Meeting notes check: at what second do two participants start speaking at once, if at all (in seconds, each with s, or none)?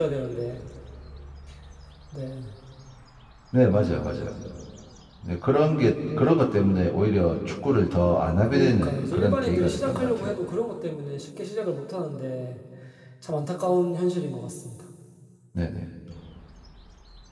8.4 s